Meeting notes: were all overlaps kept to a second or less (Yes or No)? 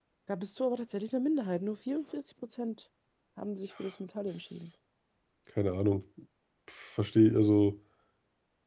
Yes